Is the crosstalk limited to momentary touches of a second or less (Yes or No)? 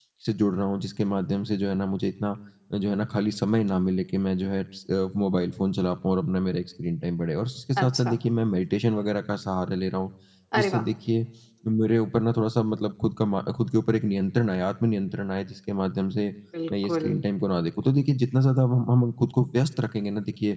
Yes